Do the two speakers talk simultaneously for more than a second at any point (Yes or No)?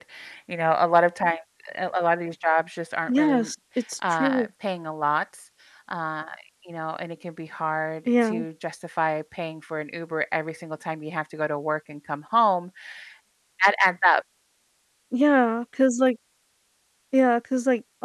No